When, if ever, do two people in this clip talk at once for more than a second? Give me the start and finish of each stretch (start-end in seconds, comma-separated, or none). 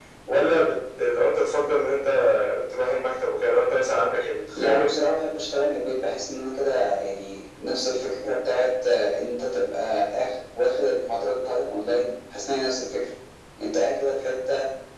none